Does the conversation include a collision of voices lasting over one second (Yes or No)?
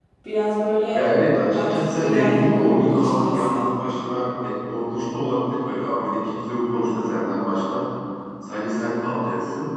Yes